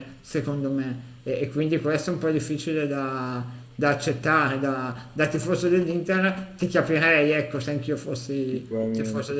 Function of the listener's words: taking over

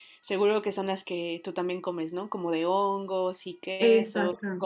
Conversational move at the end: taking over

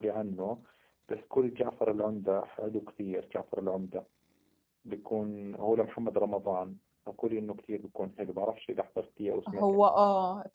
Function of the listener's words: taking over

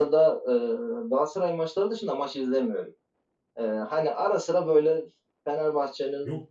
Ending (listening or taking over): listening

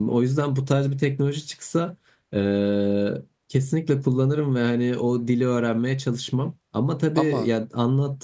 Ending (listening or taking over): listening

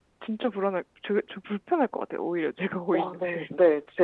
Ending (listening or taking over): taking over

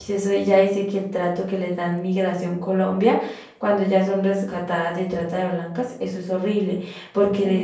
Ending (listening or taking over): listening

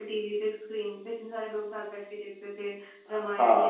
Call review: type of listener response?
listening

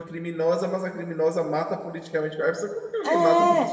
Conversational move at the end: taking over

